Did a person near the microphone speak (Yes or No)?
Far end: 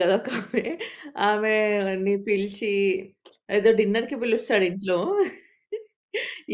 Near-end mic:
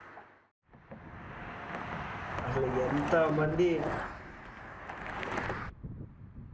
Yes